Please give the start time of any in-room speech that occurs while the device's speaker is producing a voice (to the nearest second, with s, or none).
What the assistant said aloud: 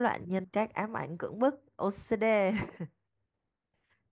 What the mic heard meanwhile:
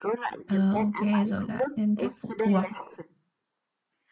0 s